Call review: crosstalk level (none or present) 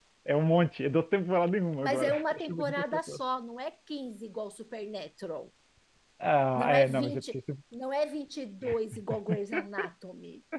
present